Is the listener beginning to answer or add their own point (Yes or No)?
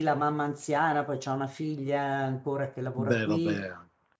No